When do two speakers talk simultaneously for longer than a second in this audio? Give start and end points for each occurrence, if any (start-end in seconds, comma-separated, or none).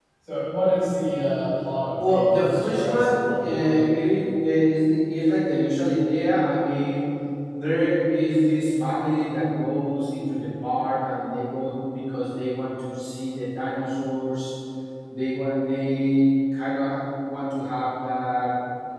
1.9-3.8